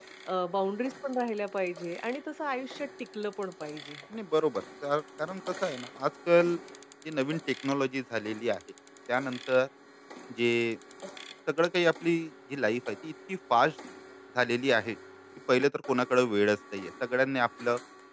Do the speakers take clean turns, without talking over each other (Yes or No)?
Yes